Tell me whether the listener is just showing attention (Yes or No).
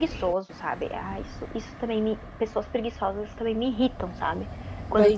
No